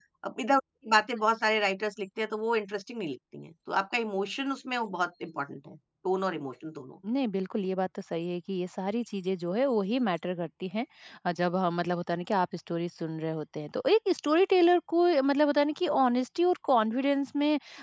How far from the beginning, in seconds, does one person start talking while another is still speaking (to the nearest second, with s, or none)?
none